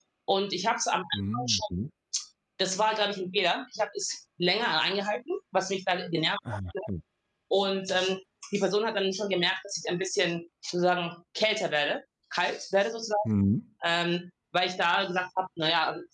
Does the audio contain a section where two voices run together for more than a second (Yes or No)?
No